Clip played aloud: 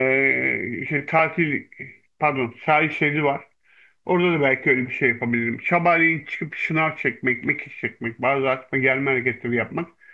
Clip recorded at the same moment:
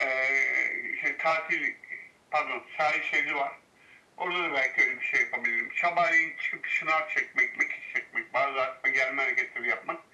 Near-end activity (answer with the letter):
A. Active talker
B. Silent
B